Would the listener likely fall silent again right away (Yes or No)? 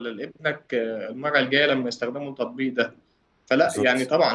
Yes